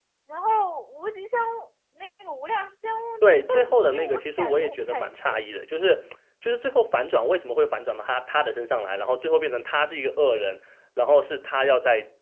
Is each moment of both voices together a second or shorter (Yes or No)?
No